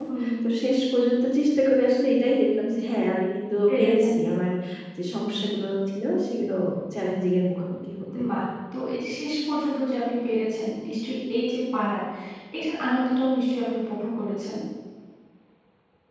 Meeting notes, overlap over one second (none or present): none